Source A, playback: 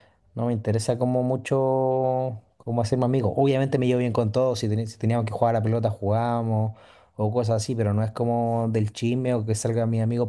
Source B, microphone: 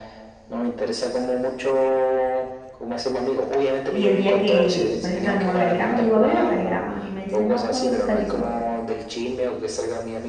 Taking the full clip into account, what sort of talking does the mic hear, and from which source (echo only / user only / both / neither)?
both